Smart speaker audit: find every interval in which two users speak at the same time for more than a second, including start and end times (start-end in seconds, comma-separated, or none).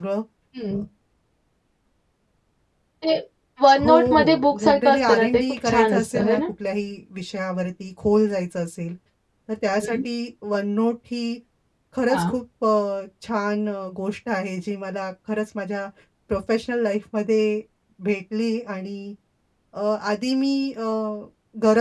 3.8-6.4